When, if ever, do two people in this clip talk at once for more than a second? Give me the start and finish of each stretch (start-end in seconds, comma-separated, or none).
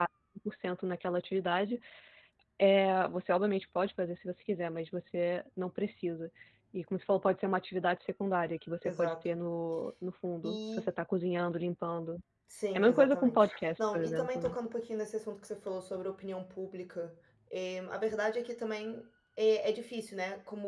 12.7-14.6